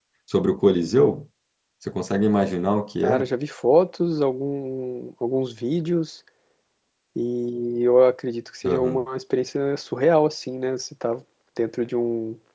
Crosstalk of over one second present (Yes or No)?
No